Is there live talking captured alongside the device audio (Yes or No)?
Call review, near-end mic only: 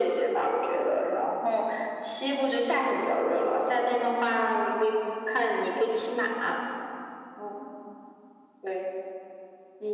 No